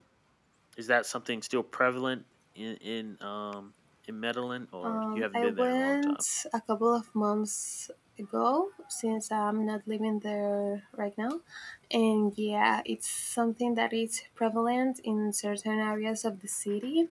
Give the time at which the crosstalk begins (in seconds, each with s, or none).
4.8 s